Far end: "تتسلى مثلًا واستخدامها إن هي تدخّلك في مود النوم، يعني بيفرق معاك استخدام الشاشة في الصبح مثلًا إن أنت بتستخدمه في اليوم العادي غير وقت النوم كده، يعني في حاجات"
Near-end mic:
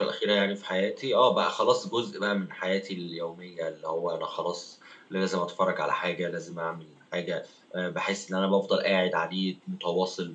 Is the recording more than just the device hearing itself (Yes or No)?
Yes